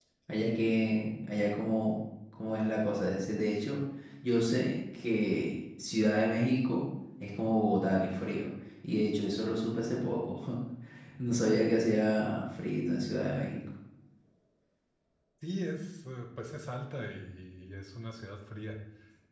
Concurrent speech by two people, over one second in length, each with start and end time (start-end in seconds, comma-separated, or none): none